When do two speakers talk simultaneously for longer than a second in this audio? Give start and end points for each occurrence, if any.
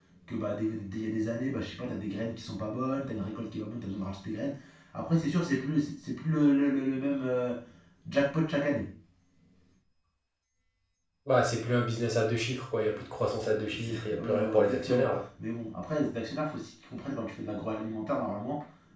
13.8-15.1

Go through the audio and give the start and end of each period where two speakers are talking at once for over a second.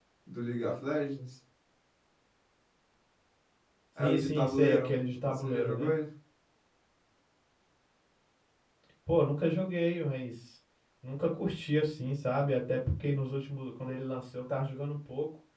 4.0-5.9

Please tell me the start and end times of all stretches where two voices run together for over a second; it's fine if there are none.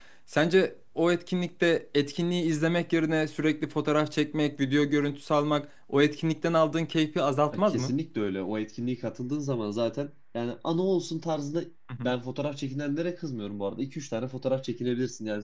none

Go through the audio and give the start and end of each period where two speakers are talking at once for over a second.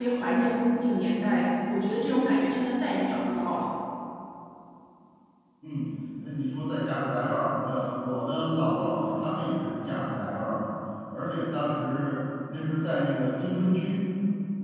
none

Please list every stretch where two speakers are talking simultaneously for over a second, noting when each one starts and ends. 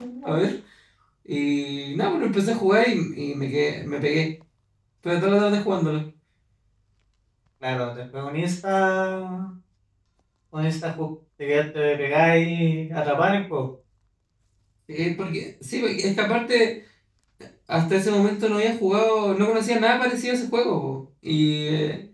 none

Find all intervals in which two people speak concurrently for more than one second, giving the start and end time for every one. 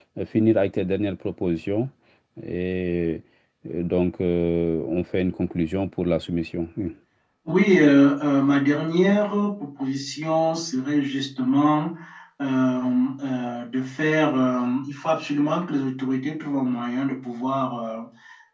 none

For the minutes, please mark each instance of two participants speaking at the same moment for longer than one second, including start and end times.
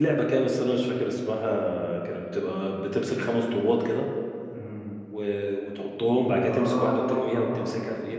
6.5-7.7

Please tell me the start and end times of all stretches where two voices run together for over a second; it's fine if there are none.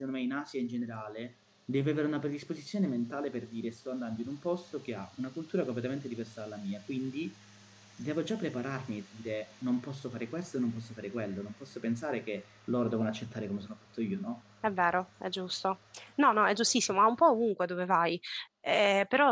none

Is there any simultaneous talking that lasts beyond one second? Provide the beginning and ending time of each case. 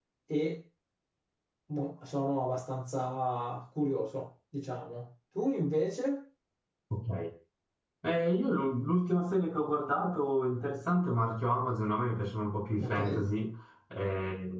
none

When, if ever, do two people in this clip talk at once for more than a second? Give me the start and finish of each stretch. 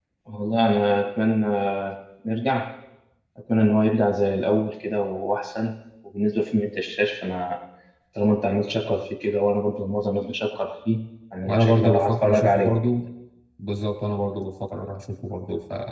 11.5-12.8

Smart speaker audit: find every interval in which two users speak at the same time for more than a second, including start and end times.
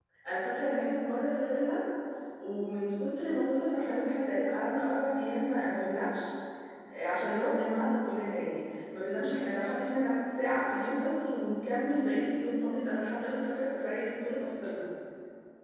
none

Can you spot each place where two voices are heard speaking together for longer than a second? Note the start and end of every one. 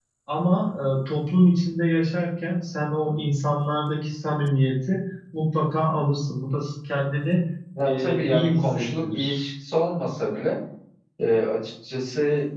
7.8-9.4

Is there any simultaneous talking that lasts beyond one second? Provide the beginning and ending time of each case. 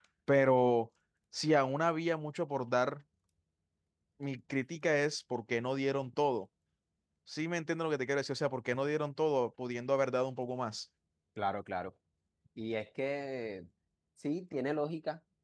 none

